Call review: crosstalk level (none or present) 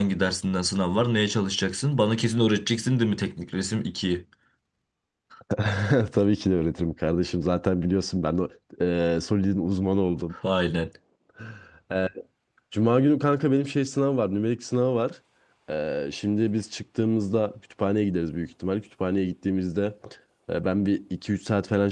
none